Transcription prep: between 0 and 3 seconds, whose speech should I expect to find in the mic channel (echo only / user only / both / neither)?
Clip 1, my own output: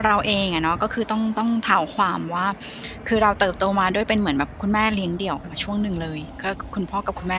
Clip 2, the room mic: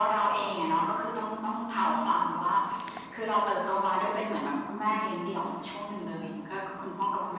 echo only